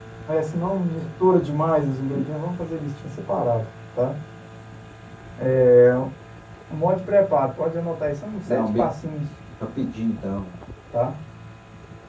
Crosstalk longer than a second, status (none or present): none